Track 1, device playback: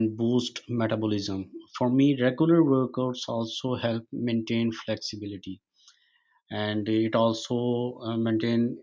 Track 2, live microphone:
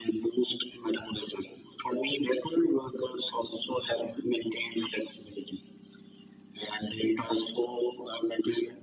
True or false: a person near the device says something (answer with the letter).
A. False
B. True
A